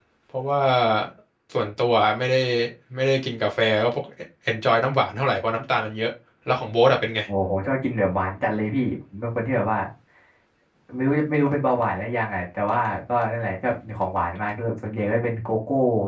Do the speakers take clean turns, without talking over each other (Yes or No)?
Yes